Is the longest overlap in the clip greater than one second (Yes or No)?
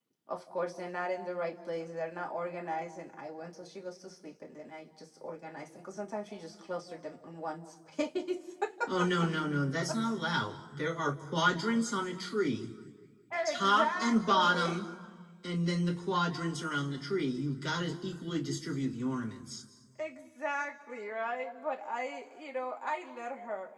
Yes